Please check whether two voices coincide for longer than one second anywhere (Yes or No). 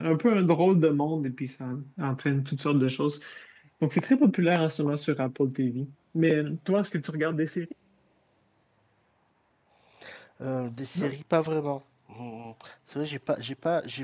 No